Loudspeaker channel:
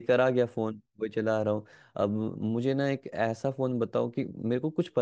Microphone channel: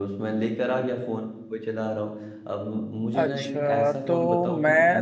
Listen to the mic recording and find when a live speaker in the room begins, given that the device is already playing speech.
3.2 s

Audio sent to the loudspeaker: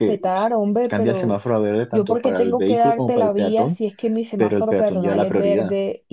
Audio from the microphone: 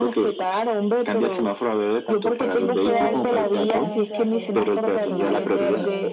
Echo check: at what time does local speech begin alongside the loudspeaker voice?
2.6 s

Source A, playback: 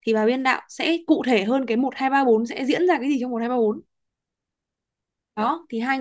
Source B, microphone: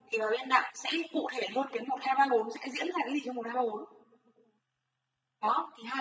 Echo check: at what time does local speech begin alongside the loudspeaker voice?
none

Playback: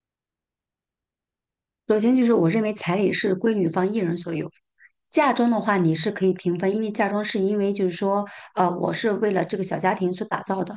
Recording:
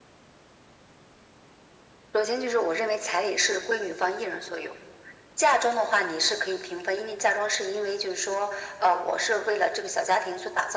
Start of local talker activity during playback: none

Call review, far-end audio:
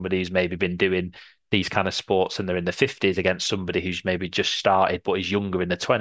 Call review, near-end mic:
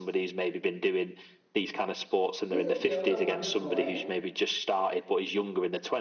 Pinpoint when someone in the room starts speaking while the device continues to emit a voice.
2.5 s

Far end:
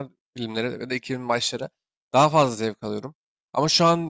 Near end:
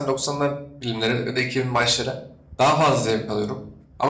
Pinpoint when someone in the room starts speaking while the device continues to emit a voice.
none

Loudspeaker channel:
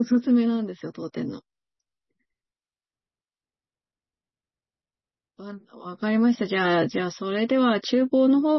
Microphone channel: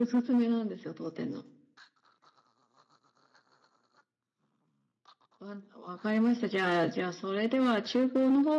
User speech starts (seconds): none

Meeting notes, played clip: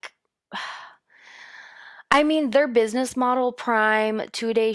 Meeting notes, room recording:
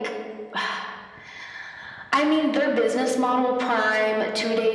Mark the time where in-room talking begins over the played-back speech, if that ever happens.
none

